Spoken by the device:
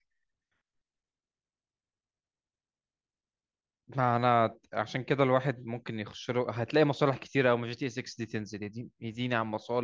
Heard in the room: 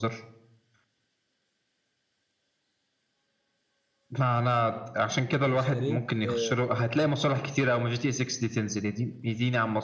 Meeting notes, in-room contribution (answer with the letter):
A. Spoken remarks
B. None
A